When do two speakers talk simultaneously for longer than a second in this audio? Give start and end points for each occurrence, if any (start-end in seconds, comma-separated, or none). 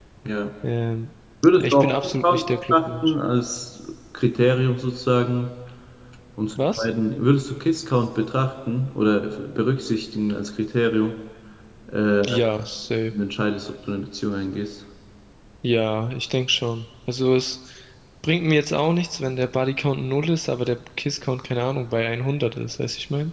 1.6-3.1